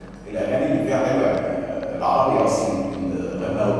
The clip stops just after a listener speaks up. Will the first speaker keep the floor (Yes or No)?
Yes